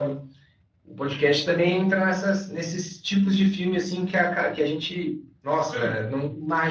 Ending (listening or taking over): listening